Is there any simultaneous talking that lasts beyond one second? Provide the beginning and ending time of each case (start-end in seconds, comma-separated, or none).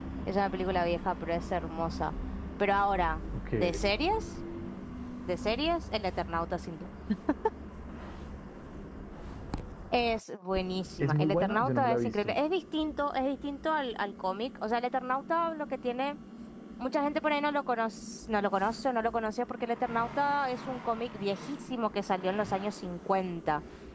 11.0-12.4